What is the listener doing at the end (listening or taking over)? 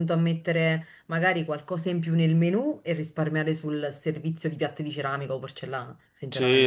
taking over